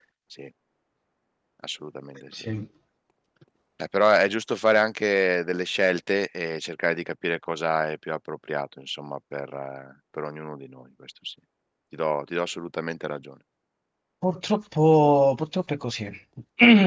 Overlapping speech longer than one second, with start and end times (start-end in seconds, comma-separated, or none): none